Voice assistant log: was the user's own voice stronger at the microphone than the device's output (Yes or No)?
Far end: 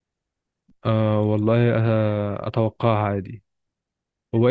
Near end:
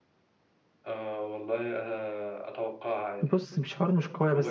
Yes